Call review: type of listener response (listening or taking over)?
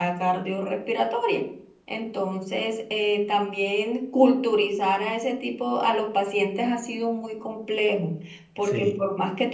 listening